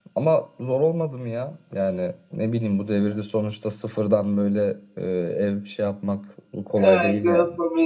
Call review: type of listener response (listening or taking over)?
taking over